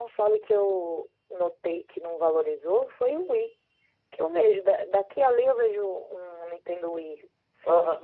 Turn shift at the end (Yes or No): Yes